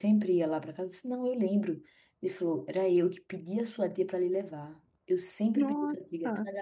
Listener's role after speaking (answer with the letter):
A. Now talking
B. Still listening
B